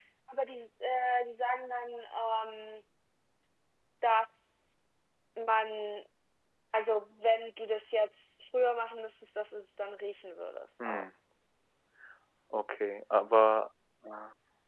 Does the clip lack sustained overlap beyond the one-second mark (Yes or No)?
Yes